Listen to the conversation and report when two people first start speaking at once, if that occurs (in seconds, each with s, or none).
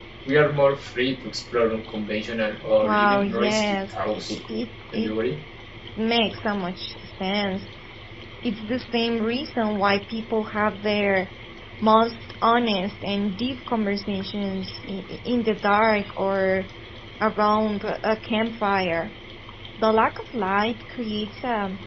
2.8 s